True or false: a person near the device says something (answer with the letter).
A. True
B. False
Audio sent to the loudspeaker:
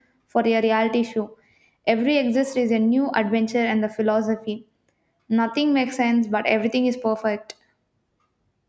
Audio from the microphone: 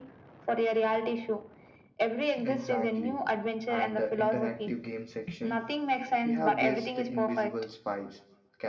A